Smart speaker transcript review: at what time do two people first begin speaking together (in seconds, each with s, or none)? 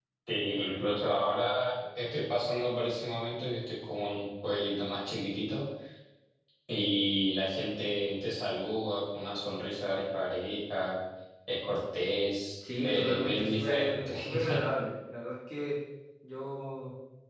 12.6 s